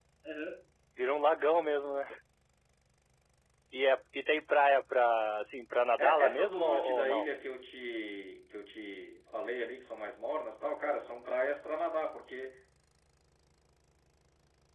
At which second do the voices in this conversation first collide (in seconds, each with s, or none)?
6.0 s